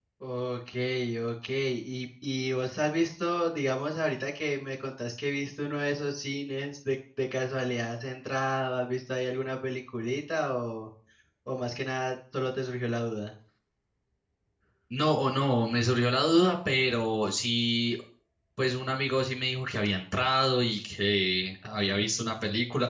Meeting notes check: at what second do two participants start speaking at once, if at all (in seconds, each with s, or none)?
none